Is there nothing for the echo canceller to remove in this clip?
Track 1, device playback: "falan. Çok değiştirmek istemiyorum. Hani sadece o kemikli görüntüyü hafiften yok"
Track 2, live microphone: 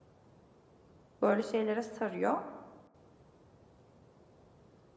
Yes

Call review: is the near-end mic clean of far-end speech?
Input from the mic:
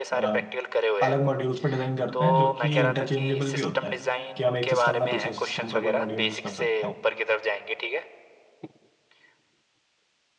No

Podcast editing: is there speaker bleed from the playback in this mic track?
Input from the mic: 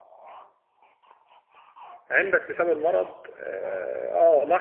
No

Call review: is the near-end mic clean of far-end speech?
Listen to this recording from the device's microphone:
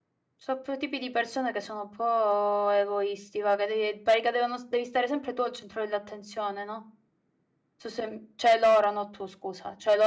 Yes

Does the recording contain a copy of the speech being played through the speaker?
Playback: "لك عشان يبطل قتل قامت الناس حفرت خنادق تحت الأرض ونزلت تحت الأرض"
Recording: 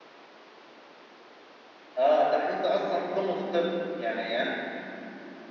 No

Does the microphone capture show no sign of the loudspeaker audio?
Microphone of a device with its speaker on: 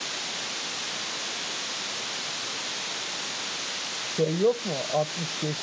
Yes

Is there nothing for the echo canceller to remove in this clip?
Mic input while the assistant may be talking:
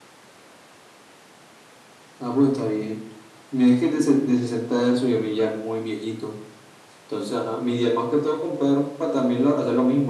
No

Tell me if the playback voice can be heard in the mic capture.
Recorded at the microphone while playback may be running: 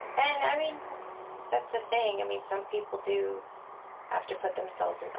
No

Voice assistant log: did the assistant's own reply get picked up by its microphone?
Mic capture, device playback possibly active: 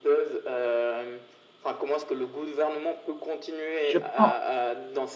Yes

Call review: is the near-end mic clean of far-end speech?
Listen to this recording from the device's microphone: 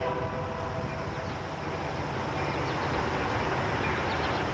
Yes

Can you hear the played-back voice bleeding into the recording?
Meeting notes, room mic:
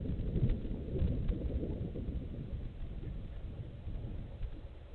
No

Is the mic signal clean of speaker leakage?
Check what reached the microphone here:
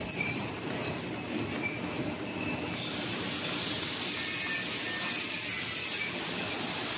Yes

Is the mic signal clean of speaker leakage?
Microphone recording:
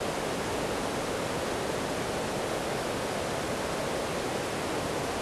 Yes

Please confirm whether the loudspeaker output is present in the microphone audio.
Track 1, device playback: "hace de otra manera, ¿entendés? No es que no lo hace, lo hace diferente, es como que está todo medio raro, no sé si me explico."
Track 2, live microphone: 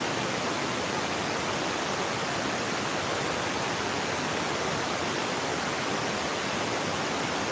No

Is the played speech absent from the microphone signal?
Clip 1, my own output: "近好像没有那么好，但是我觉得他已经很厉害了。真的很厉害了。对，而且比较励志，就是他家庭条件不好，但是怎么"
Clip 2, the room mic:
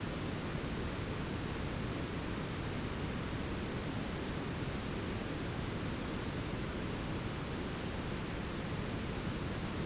Yes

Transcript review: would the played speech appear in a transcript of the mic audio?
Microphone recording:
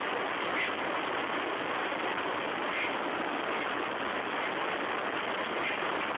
No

